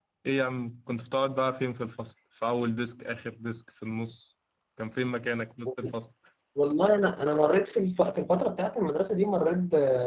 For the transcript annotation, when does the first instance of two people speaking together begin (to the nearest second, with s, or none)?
none